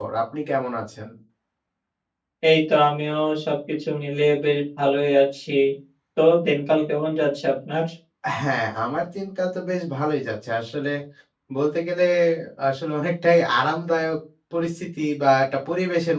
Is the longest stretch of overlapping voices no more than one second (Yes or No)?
Yes